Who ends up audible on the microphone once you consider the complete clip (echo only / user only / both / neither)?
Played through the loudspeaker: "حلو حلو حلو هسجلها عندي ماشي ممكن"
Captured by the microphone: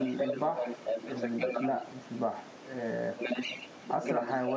both